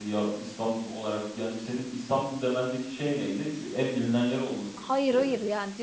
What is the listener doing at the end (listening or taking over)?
taking over